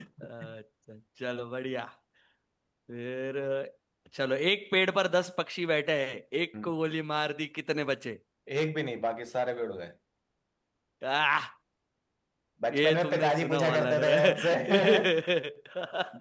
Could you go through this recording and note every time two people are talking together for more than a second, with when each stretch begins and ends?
12.7-15.0

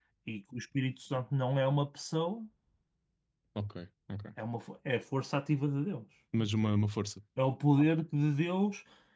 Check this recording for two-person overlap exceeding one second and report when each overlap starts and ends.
none

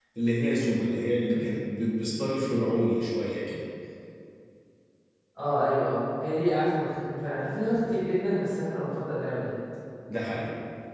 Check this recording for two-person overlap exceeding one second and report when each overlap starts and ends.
none

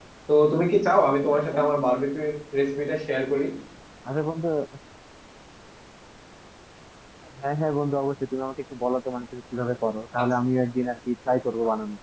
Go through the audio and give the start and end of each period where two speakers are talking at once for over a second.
none

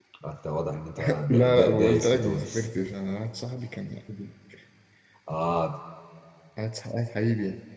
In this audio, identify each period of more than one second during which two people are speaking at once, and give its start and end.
1.1-2.7

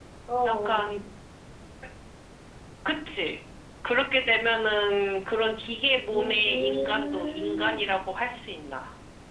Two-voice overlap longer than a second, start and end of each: 6.1-8.1

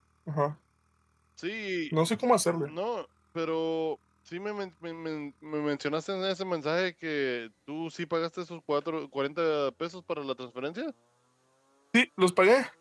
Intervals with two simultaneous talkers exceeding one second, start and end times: none

